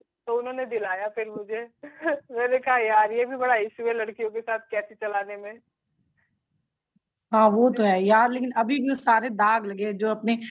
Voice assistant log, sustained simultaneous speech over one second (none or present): none